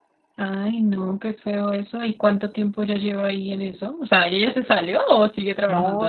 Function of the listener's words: taking over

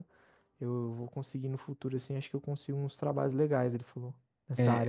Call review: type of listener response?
taking over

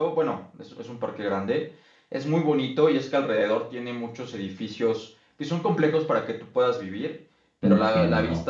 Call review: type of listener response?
listening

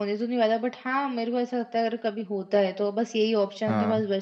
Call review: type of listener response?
listening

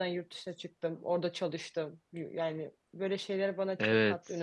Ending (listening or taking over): taking over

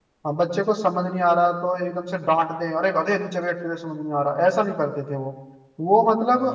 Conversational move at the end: taking over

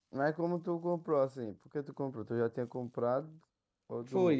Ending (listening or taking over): taking over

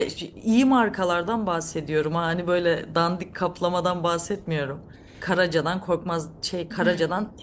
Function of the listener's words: listening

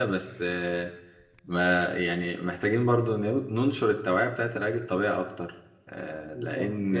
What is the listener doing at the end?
taking over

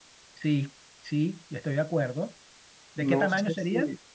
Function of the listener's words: taking over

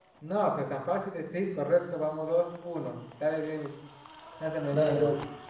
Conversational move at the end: taking over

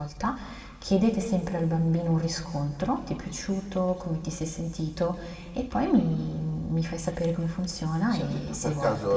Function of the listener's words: taking over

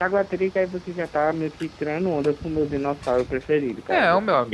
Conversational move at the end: taking over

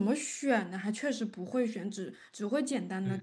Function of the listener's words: taking over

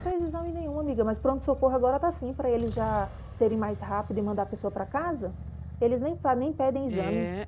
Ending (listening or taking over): taking over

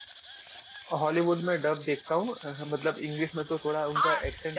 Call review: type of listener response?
taking over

